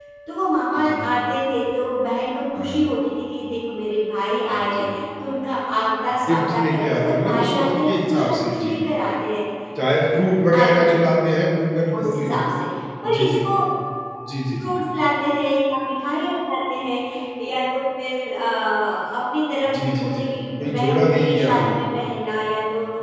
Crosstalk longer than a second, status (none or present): present